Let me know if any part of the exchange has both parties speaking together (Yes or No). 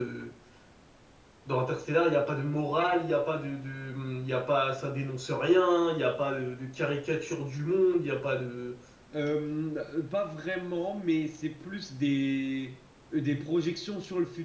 No